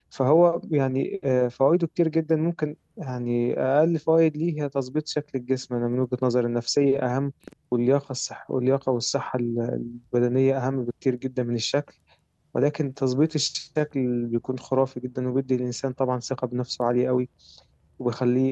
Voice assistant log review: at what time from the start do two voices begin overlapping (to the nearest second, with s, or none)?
none